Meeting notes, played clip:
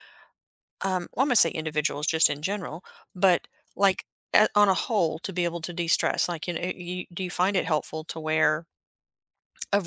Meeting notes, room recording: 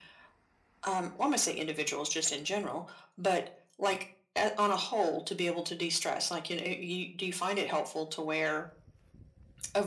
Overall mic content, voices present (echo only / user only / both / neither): echo only